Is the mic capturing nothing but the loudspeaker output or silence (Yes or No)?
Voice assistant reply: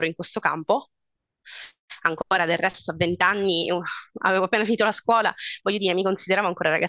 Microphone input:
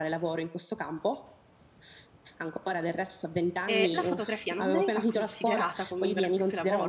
No